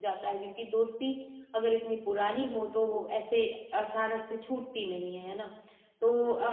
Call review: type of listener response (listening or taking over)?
listening